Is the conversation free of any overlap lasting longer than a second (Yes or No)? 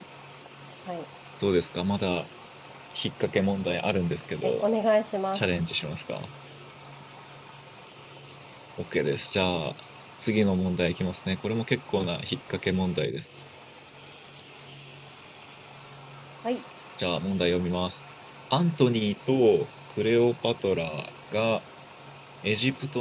Yes